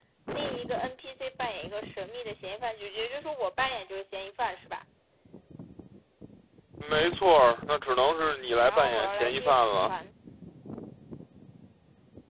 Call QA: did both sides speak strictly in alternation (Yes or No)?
No